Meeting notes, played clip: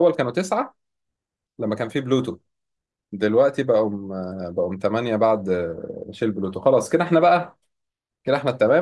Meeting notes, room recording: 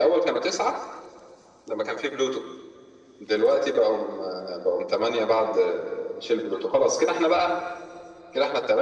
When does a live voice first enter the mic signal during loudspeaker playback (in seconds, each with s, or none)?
none